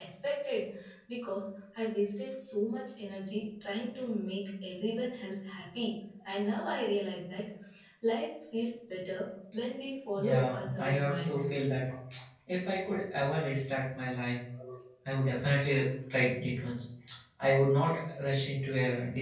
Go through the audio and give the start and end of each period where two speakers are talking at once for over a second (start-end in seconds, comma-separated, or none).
10.2-11.4